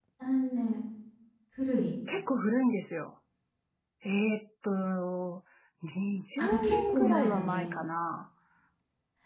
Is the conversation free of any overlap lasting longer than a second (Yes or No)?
No